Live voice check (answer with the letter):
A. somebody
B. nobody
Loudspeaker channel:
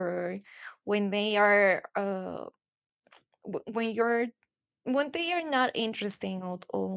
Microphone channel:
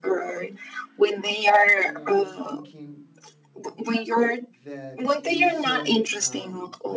A